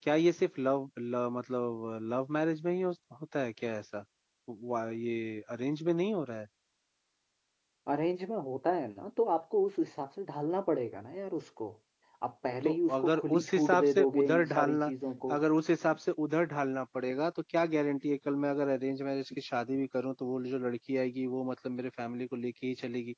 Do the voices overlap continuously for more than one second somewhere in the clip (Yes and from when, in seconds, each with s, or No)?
Yes, from 12.6 s